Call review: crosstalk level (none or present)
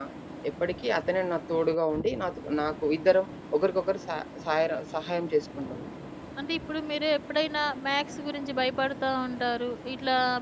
none